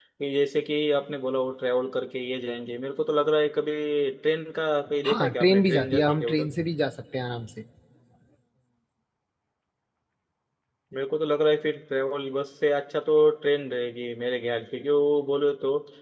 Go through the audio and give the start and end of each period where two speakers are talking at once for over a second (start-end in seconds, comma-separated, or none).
5.0-6.5